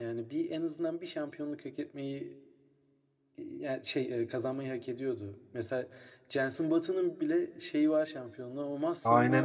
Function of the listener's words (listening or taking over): taking over